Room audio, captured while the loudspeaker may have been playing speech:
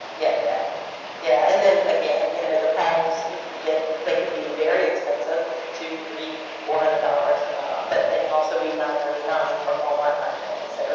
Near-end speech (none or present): none